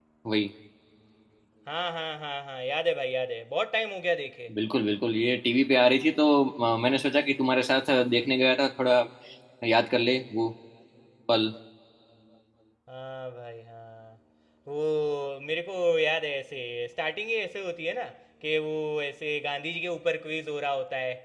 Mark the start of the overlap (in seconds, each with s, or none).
none